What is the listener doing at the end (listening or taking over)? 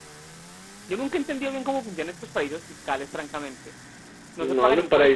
taking over